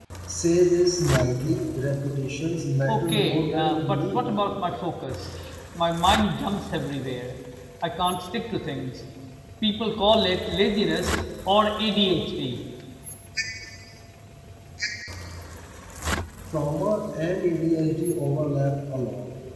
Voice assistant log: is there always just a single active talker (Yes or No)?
No